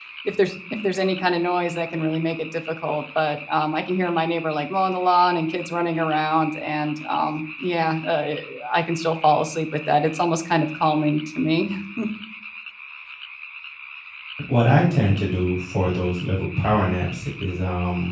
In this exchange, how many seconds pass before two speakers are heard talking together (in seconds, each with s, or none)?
none